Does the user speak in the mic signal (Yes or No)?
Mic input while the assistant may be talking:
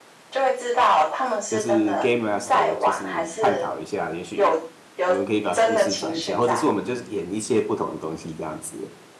Yes